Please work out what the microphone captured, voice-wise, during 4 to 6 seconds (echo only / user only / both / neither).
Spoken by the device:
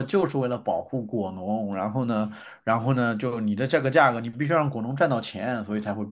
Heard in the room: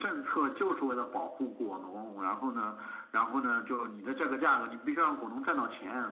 echo only